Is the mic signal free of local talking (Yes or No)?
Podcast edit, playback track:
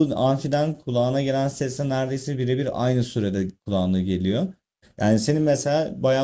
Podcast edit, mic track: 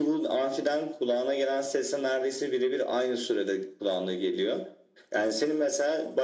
Yes